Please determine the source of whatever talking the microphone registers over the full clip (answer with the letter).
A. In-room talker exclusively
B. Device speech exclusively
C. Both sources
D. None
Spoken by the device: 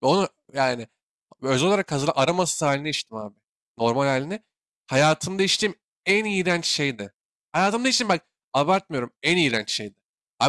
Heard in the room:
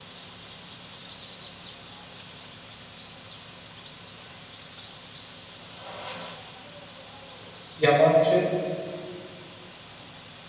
A